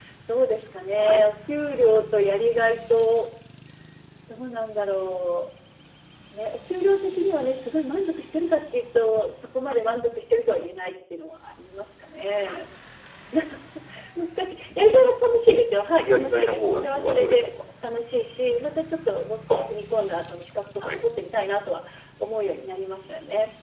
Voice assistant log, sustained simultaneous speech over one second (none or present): present